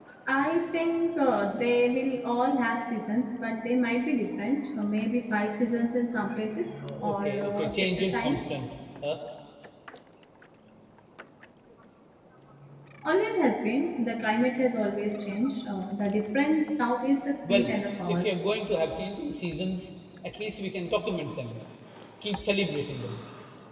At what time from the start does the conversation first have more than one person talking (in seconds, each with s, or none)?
6.8 s